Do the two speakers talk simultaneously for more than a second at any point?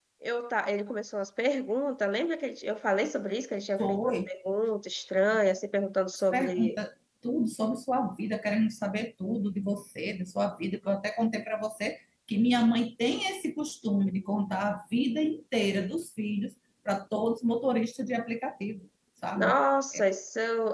No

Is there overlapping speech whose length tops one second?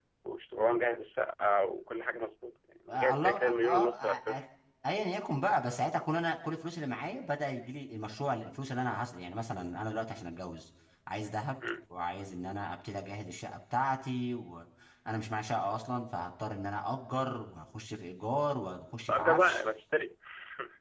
Yes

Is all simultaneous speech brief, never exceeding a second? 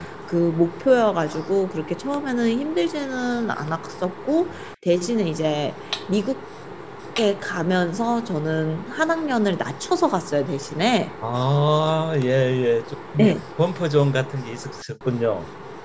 Yes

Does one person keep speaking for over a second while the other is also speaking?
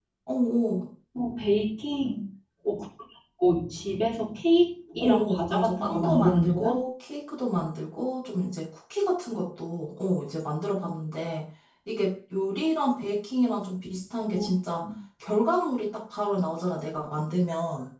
Yes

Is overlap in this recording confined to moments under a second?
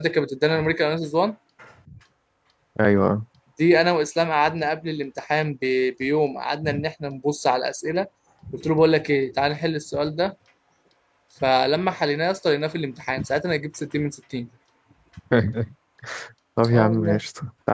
Yes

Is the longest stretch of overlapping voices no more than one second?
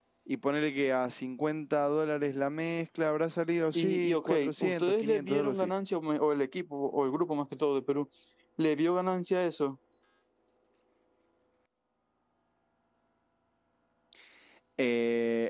No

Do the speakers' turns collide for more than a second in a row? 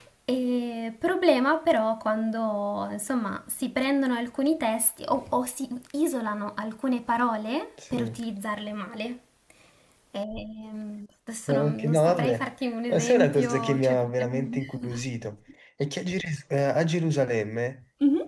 Yes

